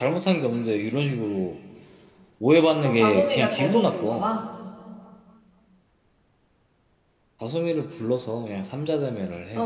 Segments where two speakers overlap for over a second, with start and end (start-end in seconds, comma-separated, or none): 2.8-4.3